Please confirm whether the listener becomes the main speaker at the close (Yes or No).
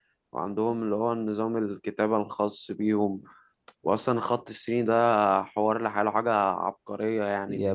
Yes